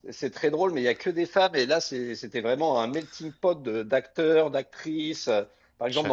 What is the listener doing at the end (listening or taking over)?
listening